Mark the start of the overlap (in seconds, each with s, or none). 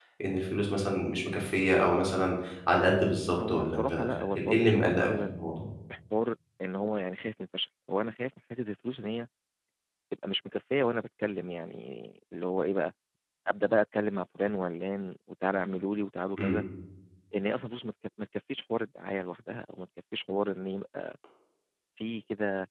3.4 s